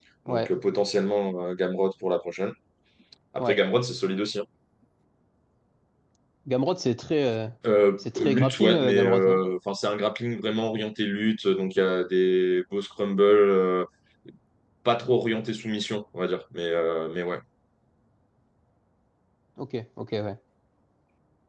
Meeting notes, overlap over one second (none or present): present